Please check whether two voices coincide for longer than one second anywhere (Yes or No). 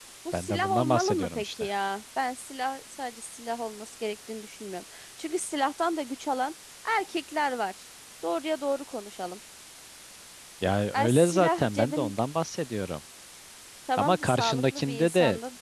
Yes